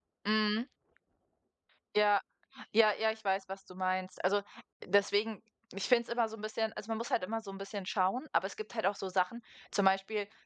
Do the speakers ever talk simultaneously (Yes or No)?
No